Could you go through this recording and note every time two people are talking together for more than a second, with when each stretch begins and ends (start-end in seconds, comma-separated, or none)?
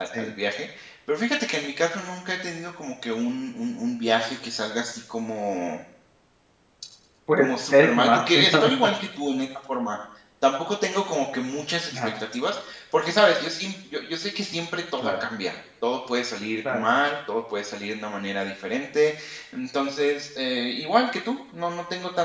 7.4-8.7